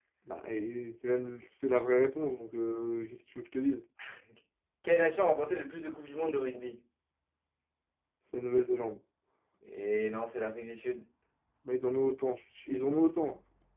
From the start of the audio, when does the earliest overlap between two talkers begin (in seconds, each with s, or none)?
none